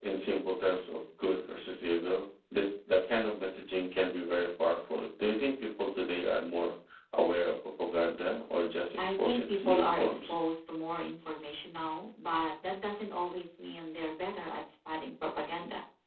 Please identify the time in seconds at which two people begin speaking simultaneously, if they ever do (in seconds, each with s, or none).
9.0 s